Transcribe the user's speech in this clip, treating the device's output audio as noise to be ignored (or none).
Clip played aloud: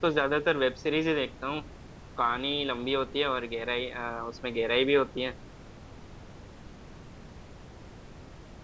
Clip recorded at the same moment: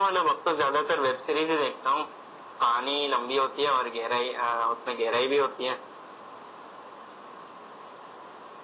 none